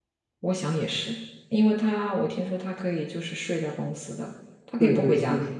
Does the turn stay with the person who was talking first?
No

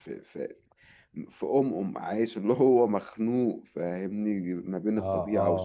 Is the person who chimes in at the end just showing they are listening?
Yes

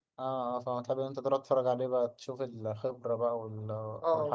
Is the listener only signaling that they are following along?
No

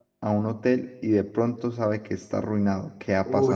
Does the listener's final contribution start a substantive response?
Yes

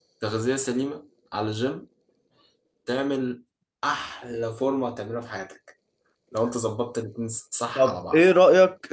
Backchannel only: No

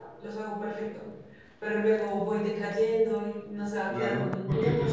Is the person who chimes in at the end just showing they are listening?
No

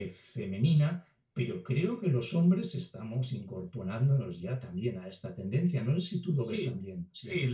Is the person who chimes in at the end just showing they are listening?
No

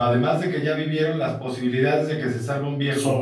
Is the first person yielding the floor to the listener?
No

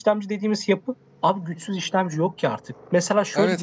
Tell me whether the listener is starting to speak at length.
Yes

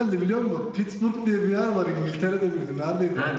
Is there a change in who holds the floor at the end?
No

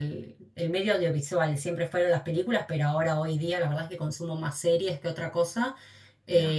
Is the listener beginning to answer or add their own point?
No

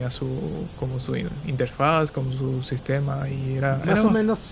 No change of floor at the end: No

